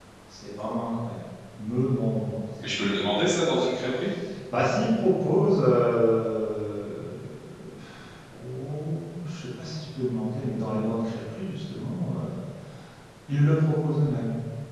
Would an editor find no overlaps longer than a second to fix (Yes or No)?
Yes